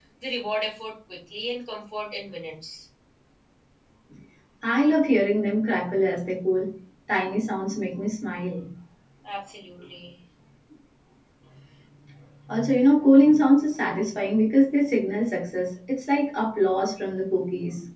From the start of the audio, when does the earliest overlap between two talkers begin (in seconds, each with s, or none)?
none